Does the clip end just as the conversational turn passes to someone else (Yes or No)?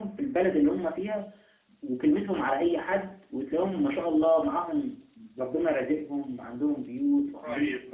Yes